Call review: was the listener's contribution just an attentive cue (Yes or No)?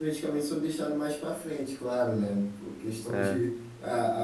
Yes